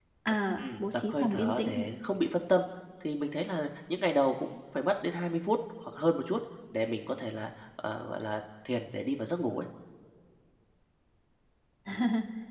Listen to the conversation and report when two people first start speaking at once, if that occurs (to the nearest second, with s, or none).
1 s